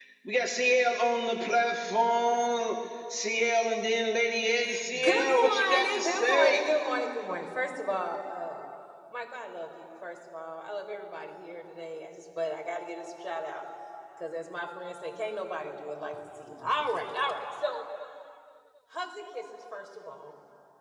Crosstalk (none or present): present